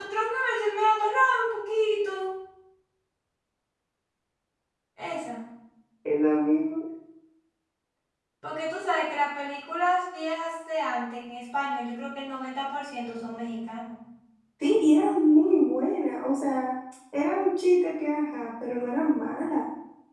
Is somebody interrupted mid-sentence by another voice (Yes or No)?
No